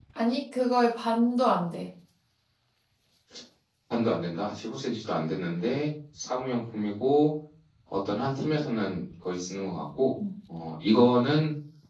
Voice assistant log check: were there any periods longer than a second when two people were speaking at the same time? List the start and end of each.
none

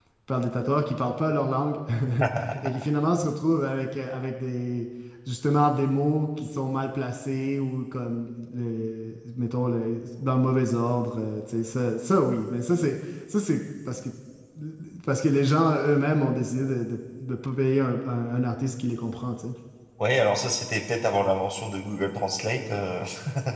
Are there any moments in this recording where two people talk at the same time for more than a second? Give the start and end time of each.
none

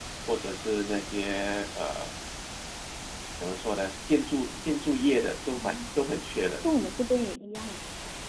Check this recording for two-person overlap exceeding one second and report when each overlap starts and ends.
none

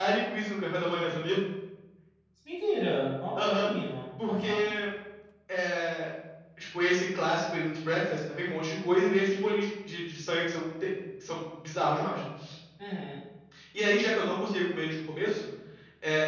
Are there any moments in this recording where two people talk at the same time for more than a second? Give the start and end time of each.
none

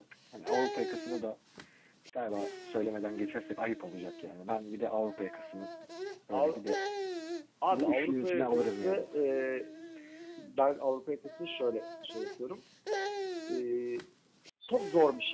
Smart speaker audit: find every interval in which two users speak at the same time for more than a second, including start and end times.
7.7-9.1

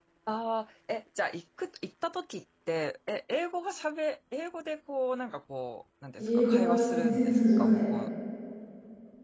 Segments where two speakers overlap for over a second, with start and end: 6.2-7.8

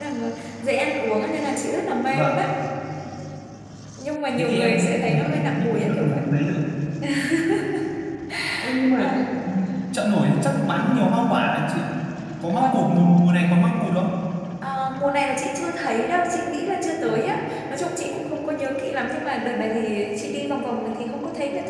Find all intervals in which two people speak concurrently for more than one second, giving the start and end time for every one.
4.4-6.2

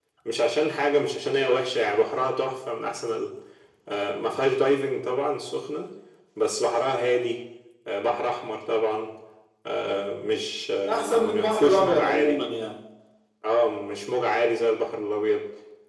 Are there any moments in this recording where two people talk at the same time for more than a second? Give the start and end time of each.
10.9-12.4

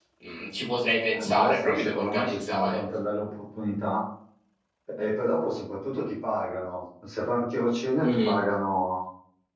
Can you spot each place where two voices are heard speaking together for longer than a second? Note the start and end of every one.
1.1-2.8

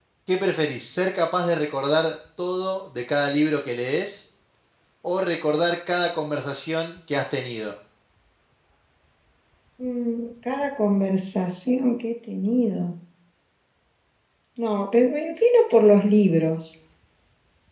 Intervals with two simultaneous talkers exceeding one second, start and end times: none

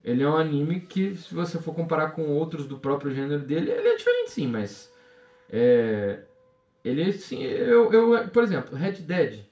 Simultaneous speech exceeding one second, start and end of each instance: none

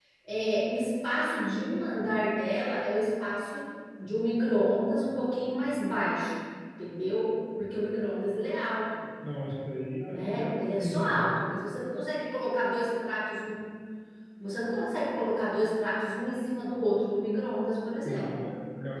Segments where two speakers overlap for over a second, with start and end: 10.1-11.4

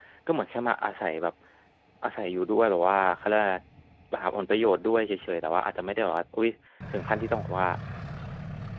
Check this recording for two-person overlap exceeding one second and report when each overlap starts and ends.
none

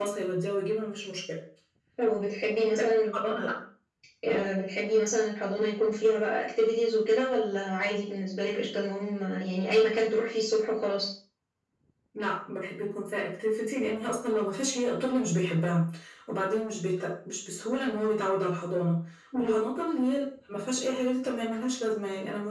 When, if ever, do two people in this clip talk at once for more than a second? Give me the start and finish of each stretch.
none

